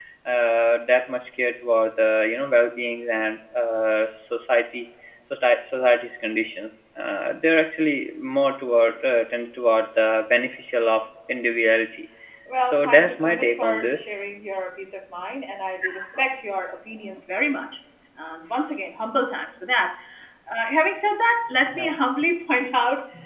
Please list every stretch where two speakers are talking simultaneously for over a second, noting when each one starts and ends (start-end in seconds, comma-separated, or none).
12.6-14.1